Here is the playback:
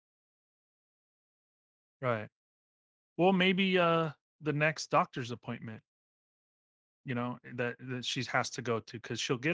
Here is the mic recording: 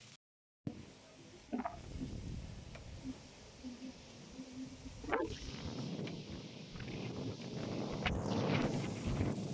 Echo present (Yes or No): No